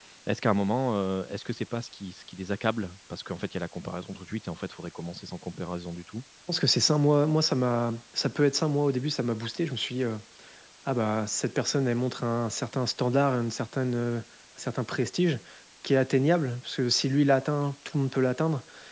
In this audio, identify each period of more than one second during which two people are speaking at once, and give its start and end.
none

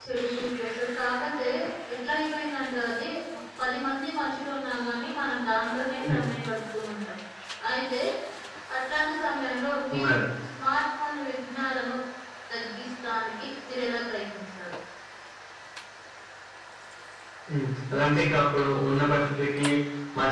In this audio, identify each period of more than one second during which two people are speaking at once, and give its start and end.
none

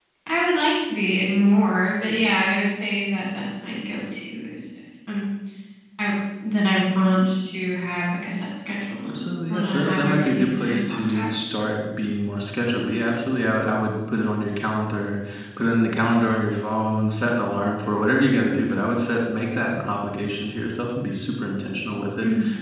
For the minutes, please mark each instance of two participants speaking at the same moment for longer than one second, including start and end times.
9.1-11.3

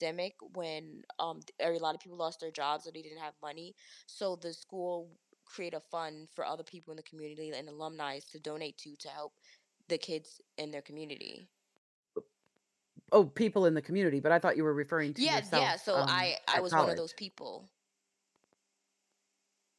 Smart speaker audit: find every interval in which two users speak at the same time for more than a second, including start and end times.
15.2-17.0

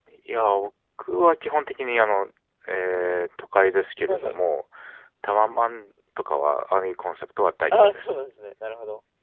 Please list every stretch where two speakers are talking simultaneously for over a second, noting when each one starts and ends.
none

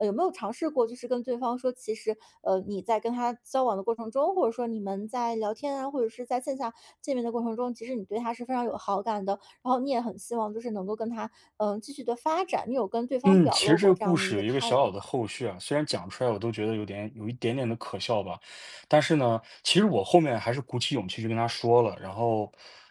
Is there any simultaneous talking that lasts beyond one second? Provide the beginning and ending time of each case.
13.2-15.0

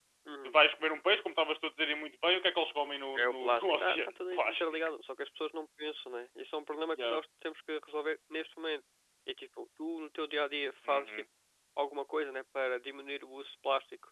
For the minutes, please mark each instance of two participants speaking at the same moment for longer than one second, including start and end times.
3.2-4.6

